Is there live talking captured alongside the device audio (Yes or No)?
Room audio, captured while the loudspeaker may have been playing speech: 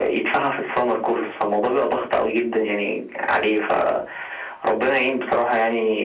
No